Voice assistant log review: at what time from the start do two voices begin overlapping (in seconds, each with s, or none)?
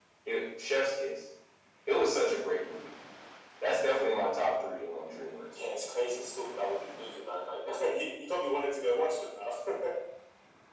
none